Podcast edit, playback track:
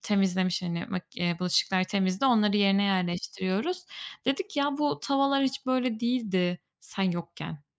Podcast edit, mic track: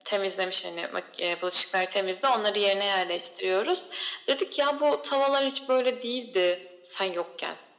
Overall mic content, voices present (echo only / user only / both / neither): echo only